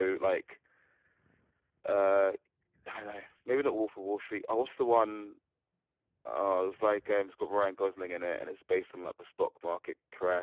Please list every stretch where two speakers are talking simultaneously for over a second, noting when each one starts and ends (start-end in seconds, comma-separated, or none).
none